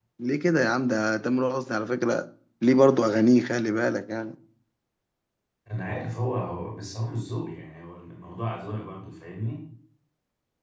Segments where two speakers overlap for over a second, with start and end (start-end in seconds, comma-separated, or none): none